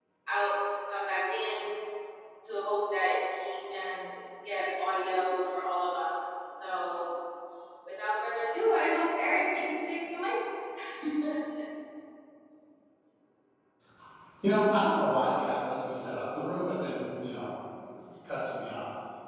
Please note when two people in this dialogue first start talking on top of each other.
none

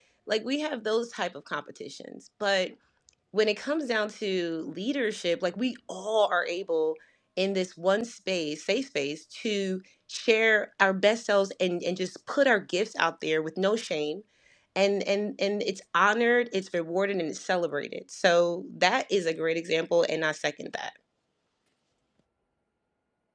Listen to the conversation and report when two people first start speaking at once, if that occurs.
none

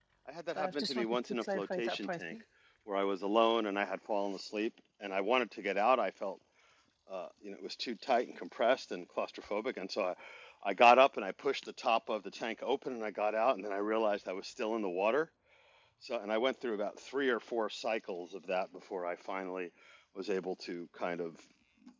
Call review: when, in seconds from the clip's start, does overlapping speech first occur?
0.6 s

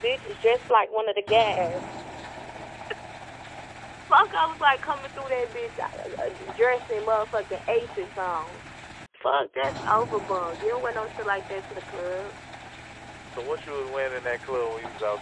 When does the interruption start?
none

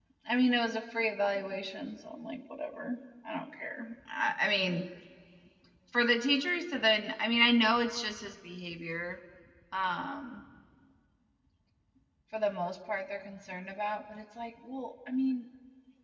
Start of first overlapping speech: none

